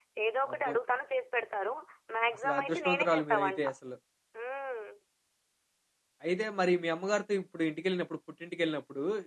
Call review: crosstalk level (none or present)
present